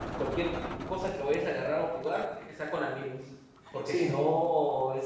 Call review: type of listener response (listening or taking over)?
listening